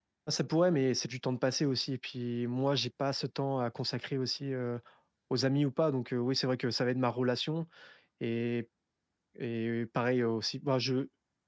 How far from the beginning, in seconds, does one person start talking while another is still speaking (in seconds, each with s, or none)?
none